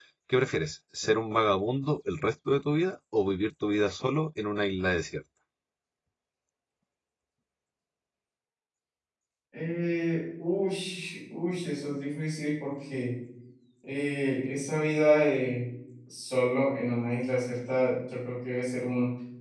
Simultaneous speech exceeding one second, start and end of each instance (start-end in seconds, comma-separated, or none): none